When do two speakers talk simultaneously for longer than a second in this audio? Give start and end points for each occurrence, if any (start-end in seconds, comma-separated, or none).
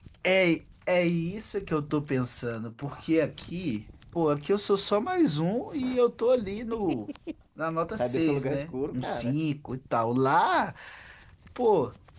8.0-9.3